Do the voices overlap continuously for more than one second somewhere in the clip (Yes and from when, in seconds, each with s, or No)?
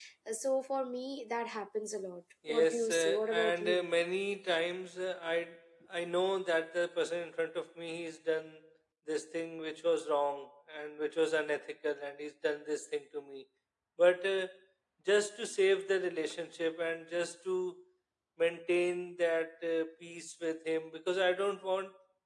Yes, from 2.5 s